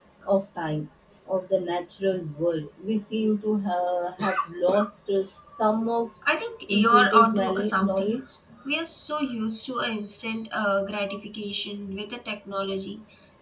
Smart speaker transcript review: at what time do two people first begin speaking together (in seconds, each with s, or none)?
6.7 s